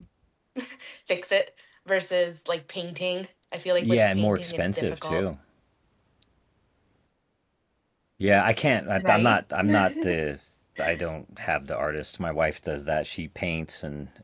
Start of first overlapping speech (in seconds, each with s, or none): 3.8 s